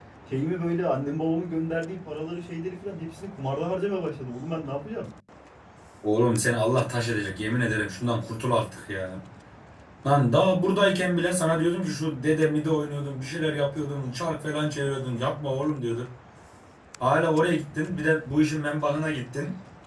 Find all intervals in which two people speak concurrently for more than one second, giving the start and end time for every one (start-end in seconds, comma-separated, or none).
none